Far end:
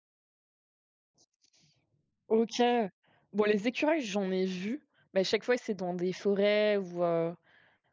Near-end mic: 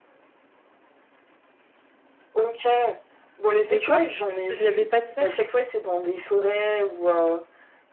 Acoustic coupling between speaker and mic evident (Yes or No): Yes